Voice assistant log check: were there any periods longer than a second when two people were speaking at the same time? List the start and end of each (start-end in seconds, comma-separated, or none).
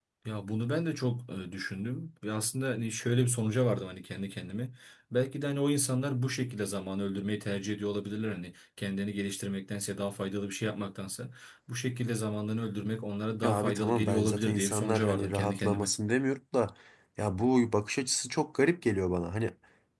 13.4-15.9